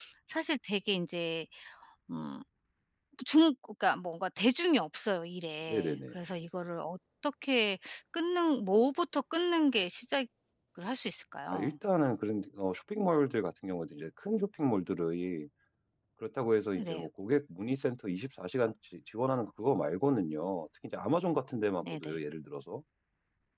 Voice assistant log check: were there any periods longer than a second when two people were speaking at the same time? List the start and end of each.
none

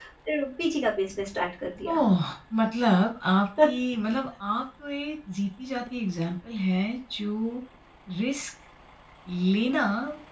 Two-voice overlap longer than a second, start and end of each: none

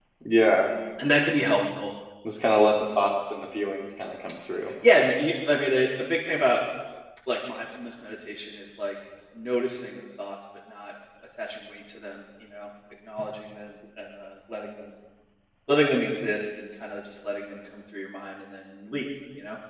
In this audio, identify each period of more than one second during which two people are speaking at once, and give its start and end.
none

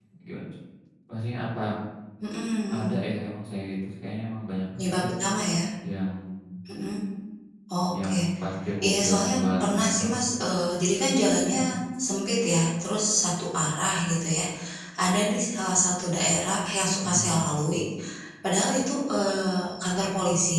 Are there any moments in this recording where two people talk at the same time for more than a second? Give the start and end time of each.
8.9-10.2

